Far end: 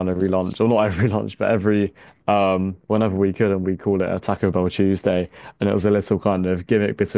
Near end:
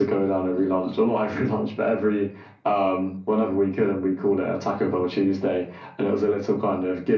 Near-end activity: none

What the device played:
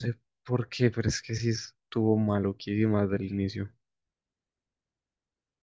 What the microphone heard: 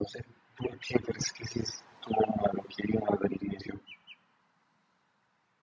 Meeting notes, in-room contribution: none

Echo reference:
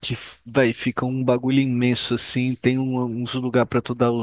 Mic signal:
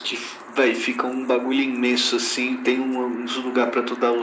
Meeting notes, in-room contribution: none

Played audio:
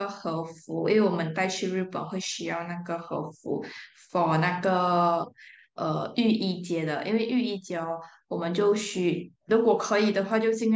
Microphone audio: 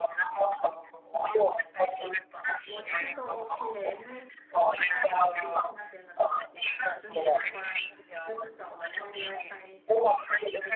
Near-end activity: present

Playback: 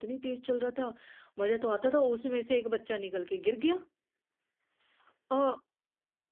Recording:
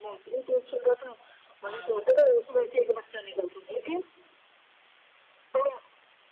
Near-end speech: present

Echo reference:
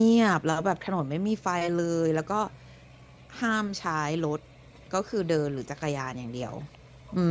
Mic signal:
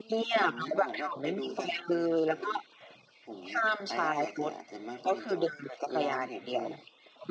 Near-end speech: present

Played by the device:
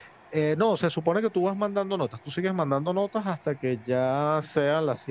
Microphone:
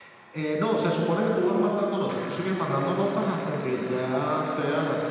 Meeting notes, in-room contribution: none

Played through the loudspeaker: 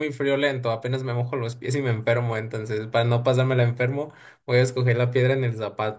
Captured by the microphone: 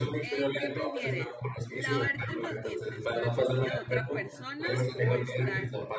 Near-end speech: present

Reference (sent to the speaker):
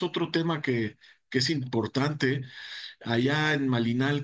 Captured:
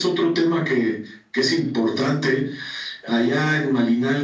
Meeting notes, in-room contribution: none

